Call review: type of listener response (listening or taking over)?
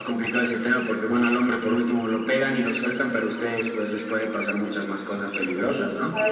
taking over